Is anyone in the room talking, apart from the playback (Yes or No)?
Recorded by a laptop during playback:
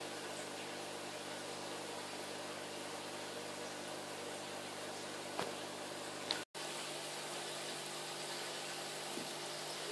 No